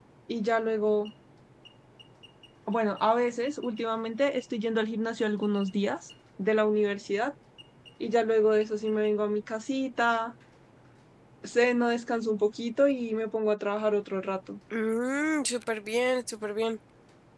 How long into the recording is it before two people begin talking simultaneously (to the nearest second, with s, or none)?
none